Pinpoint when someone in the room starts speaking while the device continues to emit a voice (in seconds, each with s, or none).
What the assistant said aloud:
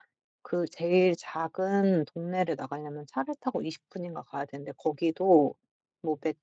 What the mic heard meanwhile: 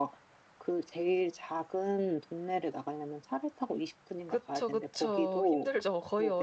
4.2 s